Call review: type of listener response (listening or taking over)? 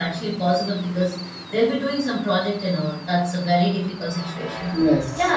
listening